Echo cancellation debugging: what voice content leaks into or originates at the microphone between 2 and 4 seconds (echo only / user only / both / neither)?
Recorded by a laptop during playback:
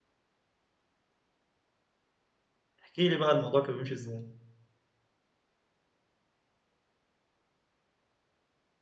user only